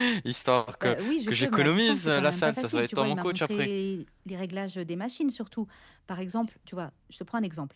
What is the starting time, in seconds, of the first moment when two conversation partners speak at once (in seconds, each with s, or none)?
0.8 s